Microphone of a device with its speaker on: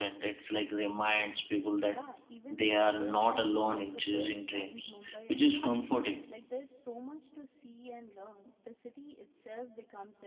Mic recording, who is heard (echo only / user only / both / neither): both